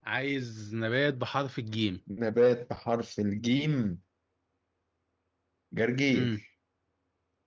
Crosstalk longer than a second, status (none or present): none